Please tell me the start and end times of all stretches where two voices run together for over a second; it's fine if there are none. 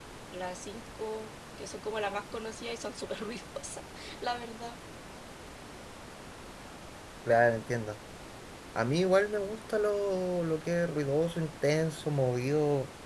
none

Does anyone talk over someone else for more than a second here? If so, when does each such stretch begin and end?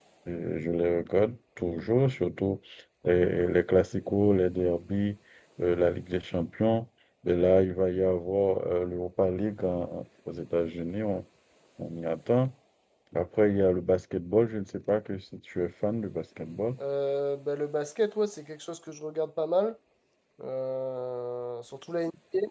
none

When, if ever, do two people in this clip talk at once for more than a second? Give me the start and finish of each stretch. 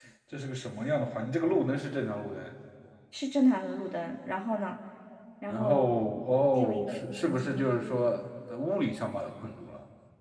6.5-7.9

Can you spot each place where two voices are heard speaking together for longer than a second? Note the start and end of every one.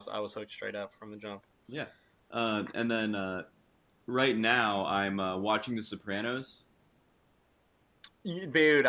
none

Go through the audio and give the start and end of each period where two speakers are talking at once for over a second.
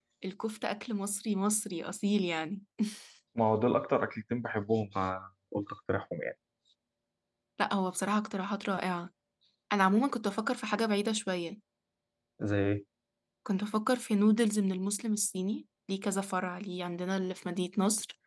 none

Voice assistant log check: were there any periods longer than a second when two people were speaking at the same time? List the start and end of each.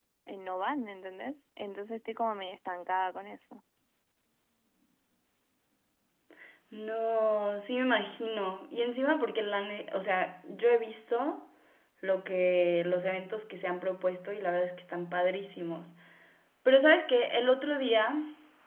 none

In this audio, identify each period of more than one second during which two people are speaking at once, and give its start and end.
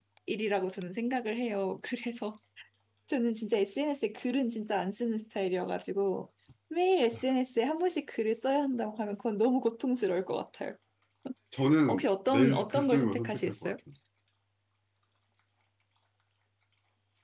11.9-13.7

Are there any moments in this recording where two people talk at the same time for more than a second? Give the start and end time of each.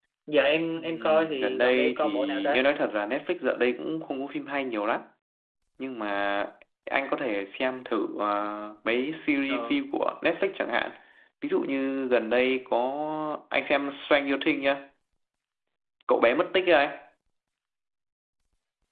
0.8-2.6

